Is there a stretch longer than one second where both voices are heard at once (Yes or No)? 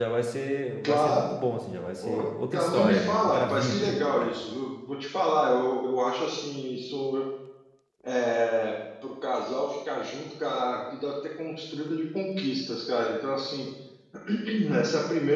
Yes